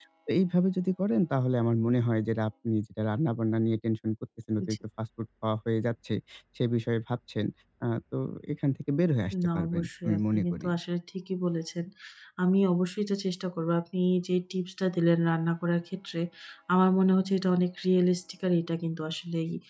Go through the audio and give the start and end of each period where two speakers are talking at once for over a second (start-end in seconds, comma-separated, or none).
9.5-10.7